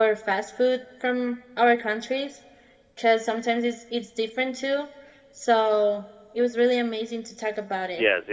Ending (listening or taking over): taking over